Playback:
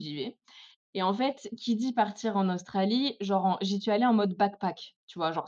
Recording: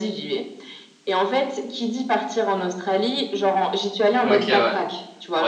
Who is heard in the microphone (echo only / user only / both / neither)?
both